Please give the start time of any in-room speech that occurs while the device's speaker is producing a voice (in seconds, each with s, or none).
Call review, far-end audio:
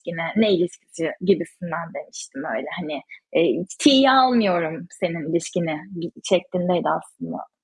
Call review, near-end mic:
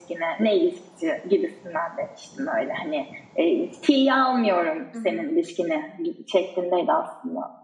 4.9 s